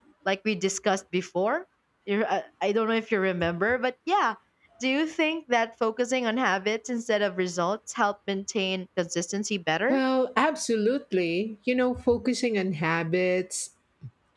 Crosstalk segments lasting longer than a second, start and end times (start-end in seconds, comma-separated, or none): none